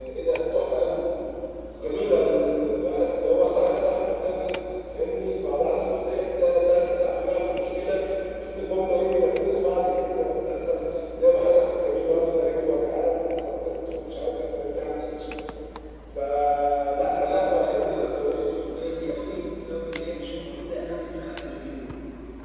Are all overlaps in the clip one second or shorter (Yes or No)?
No